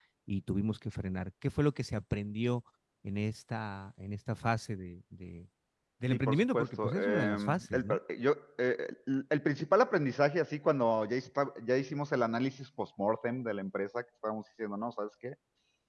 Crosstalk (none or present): present